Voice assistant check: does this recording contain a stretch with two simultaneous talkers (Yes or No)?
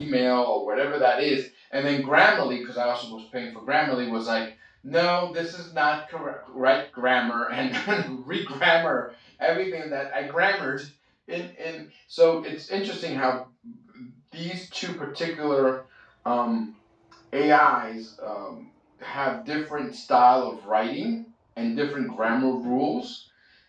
No